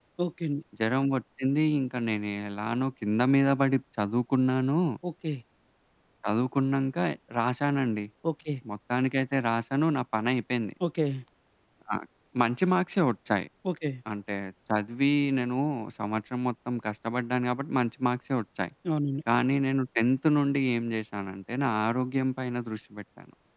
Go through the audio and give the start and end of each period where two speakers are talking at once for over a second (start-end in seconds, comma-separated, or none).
none